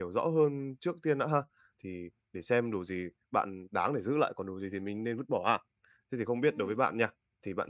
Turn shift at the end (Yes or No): No